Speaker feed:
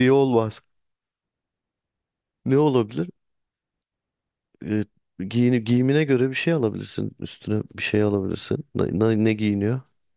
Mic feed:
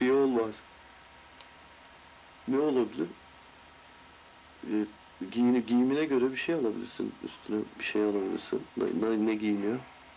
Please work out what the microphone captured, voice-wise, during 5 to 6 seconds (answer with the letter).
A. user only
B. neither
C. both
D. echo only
D